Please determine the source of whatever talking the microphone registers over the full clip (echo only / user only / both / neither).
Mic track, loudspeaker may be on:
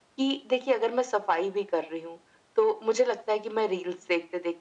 echo only